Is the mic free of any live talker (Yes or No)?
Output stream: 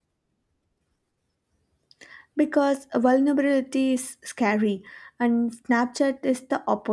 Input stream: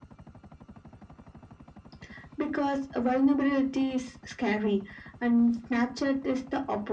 Yes